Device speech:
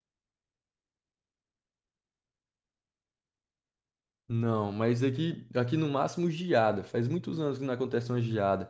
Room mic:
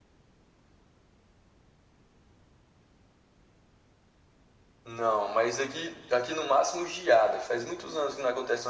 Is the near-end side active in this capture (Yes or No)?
No